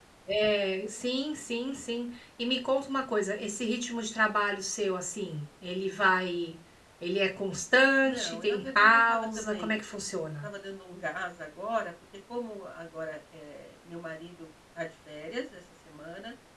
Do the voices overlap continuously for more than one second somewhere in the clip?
Yes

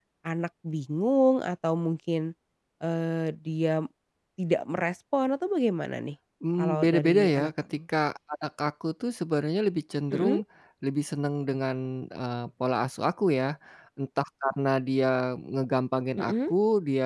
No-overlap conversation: No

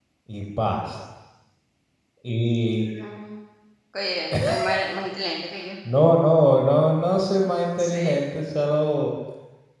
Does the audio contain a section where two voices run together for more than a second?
No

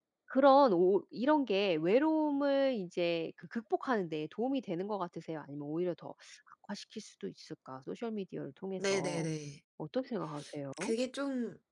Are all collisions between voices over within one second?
Yes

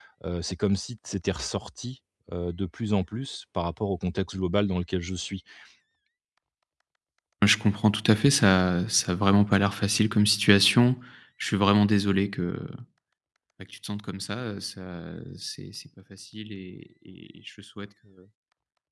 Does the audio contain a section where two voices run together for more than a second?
No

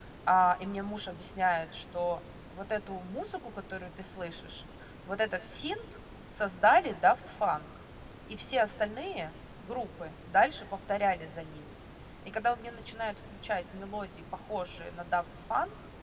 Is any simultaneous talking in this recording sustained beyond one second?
No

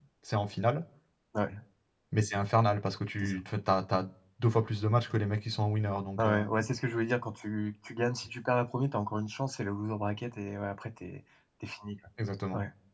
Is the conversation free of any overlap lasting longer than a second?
Yes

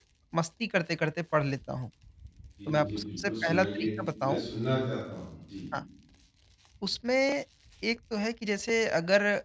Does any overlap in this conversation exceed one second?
Yes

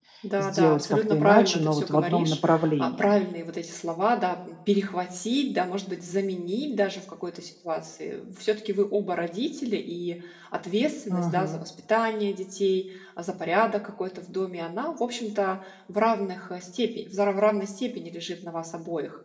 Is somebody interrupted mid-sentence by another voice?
Yes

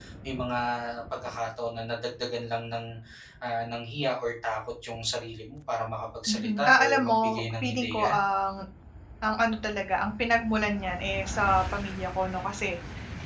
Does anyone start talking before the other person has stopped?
Yes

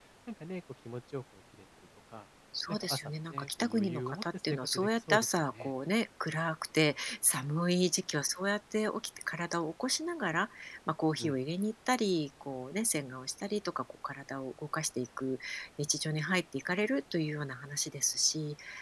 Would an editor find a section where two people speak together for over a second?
Yes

